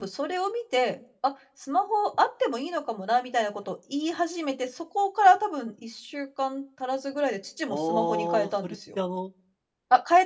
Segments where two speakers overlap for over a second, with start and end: 7.7-9.0

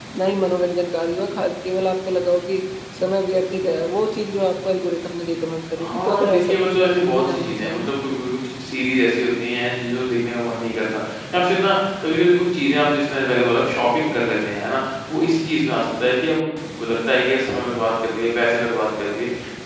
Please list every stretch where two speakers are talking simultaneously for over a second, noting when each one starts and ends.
5.8-7.9

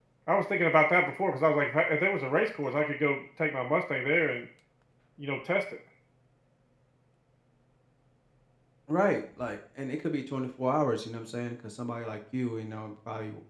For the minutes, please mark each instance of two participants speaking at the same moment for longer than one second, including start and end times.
none

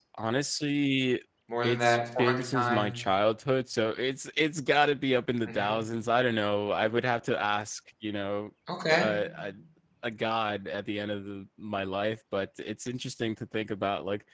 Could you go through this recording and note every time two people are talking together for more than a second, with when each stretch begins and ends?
1.6-3.0

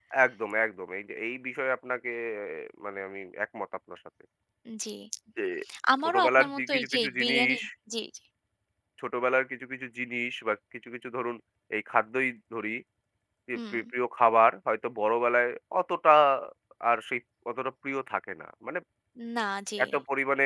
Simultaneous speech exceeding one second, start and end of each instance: 6.0-7.6

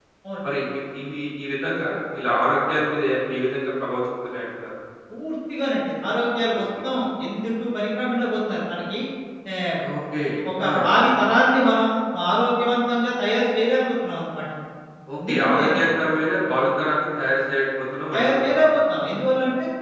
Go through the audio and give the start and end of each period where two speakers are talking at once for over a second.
none

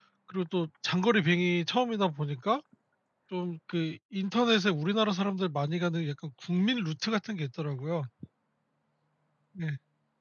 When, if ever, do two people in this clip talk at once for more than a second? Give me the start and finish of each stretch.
none

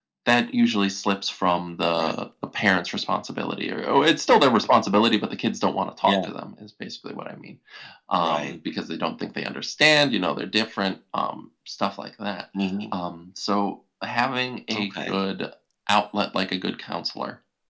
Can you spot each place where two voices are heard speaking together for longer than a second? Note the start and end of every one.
none

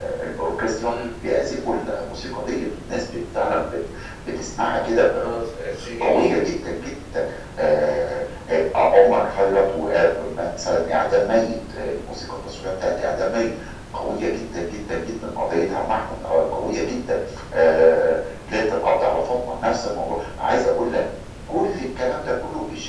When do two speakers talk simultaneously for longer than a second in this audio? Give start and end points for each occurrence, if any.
none

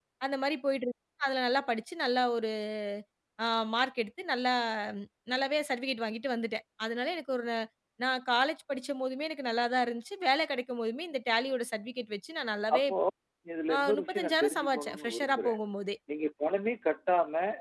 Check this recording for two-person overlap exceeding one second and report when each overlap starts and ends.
13.8-15.6

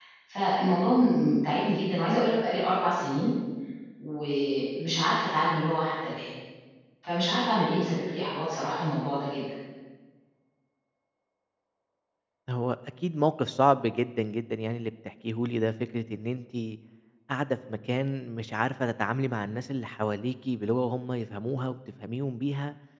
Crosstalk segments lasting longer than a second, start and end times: none

